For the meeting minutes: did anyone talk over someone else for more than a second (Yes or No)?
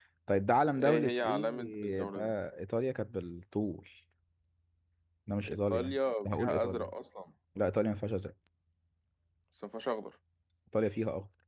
Yes